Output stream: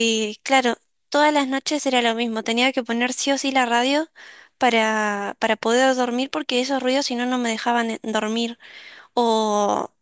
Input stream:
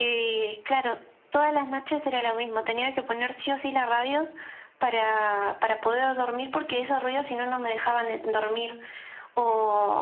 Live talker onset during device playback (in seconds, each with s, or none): none